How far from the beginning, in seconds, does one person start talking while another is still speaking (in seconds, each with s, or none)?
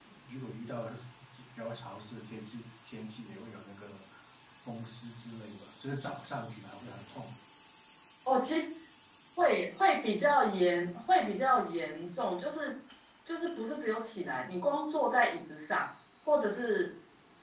none